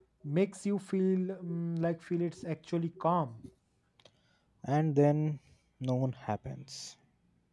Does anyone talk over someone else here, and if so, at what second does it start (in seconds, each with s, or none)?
none